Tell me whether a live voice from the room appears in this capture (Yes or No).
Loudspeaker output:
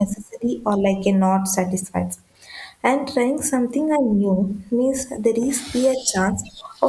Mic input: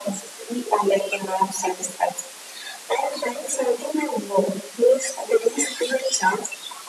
No